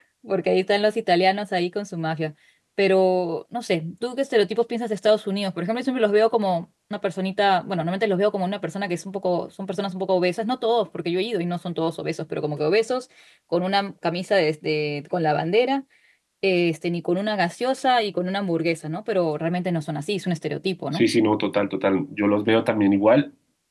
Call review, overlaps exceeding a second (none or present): none